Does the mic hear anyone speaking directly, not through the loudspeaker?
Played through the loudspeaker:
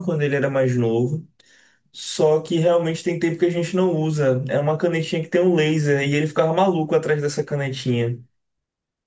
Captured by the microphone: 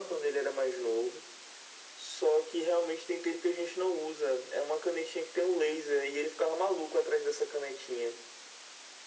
No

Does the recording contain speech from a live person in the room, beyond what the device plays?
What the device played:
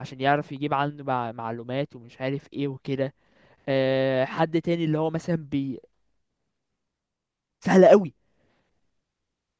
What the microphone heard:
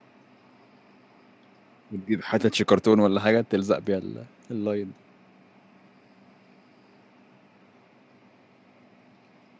Yes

